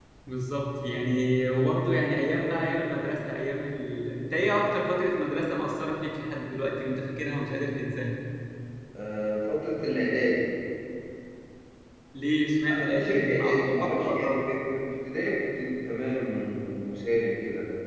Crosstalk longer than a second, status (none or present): present